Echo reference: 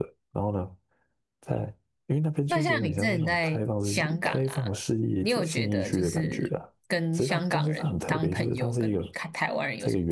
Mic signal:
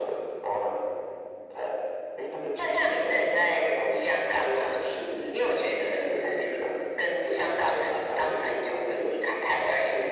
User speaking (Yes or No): No